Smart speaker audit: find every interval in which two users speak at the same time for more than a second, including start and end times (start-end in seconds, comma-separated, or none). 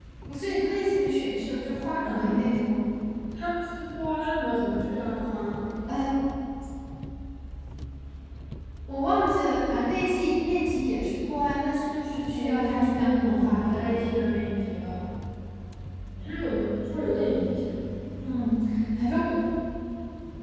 12.3-14.0